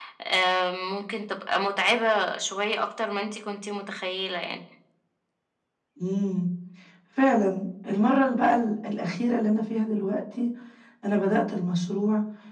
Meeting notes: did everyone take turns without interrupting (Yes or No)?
Yes